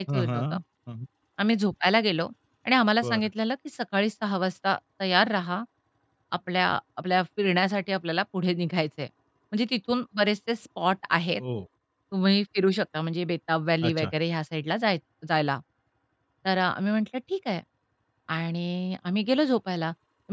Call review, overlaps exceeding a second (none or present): none